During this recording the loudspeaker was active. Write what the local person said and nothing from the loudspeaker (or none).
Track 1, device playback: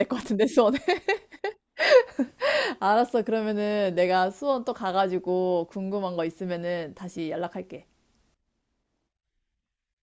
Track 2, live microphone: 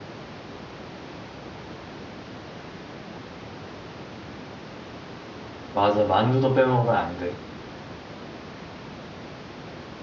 맞아, 만두도 빼먹으면 안 돼.